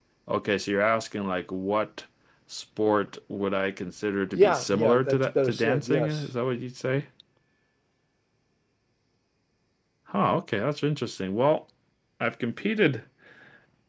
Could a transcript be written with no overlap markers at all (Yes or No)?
No